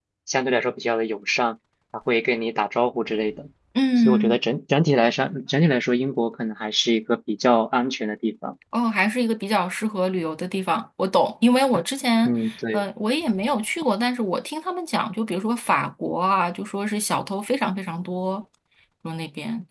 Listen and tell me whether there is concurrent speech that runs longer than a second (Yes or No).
No